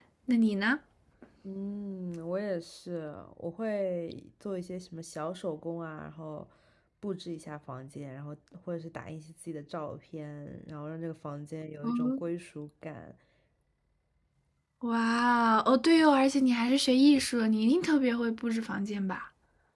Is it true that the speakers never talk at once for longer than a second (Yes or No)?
Yes